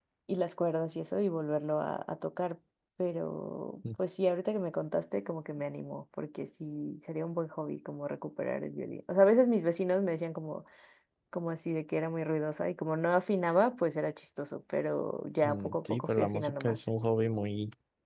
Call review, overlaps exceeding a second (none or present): present